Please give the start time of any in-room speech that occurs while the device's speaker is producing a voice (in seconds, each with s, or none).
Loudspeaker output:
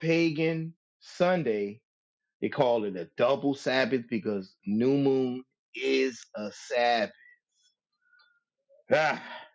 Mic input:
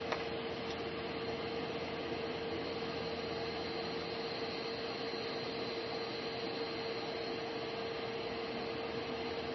none